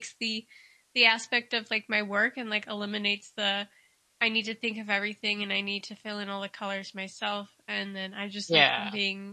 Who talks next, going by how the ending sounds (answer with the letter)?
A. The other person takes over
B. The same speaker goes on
B